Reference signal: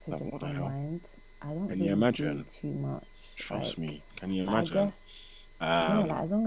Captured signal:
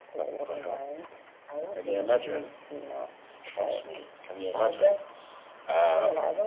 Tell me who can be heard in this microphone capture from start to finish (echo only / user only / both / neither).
echo only